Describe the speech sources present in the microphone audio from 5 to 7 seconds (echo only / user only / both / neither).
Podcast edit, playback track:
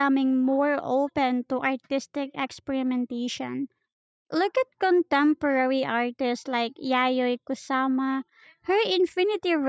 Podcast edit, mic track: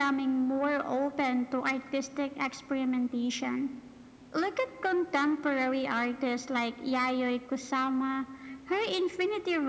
echo only